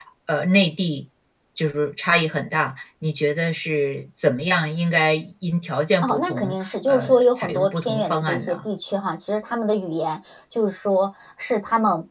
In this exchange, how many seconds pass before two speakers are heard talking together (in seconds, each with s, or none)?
6.0 s